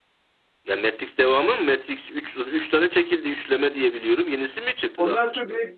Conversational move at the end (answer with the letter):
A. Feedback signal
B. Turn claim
B